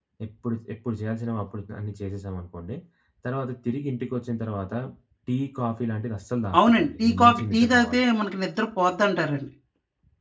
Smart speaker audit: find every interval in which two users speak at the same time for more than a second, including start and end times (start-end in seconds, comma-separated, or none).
6.7-8.0